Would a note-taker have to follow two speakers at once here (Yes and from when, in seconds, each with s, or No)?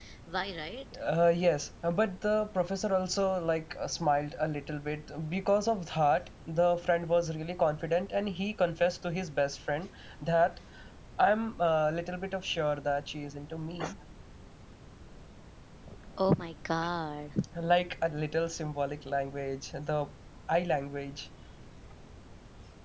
No